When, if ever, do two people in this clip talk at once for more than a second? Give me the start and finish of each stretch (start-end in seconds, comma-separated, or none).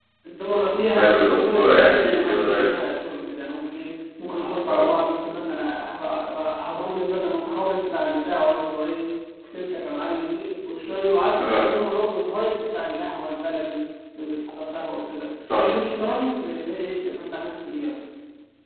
1.0-2.6